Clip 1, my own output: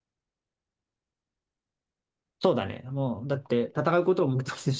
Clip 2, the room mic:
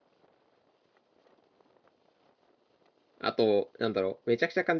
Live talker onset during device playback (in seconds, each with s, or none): 3.2 s